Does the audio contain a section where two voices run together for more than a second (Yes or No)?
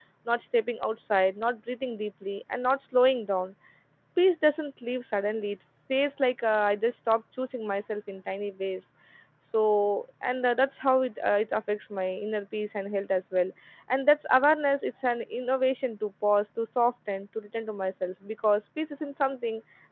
No